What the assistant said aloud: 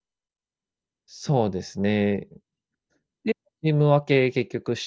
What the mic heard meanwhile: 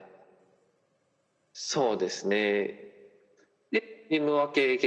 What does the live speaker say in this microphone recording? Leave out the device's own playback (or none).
none